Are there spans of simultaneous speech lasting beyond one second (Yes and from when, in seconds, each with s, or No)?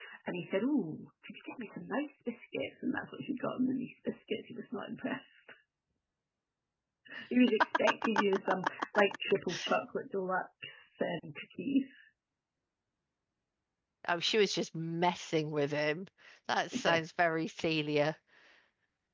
No